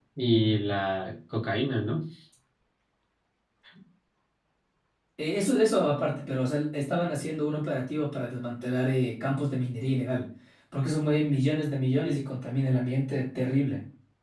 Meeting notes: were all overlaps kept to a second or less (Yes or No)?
Yes